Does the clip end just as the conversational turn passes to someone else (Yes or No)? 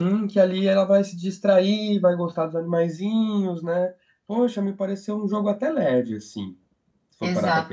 Yes